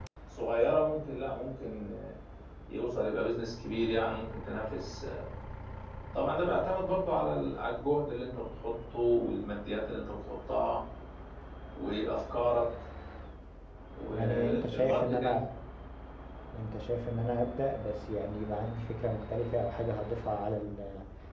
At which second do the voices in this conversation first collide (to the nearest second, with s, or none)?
14 s